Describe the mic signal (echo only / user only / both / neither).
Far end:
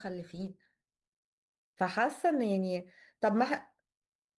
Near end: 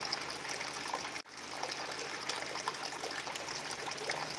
neither